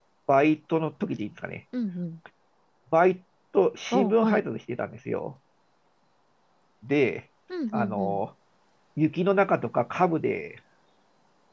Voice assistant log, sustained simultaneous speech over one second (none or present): none